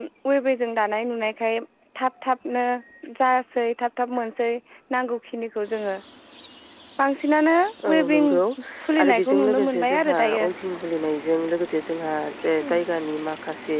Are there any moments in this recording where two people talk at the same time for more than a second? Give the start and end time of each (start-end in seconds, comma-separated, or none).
9.0-10.4